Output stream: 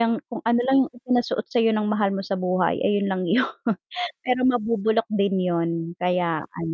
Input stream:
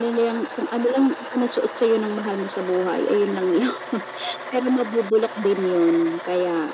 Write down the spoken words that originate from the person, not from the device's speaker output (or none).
none